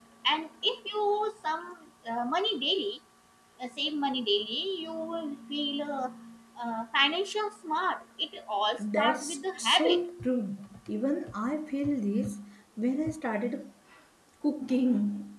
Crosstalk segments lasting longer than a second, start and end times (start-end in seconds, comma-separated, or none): 8.8-10.0